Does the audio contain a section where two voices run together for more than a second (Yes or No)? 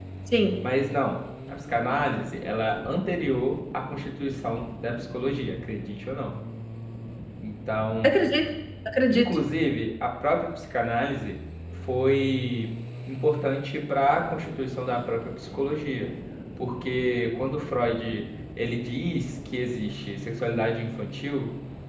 No